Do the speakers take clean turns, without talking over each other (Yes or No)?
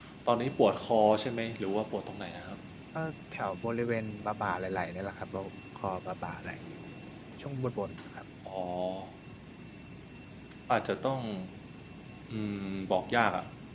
Yes